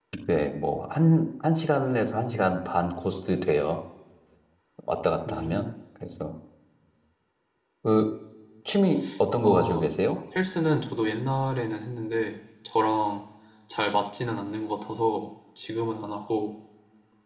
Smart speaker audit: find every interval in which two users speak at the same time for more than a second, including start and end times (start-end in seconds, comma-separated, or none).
none